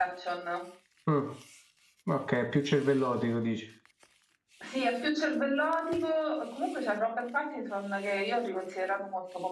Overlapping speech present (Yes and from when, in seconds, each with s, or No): No